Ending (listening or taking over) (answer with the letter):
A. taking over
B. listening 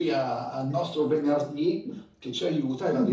B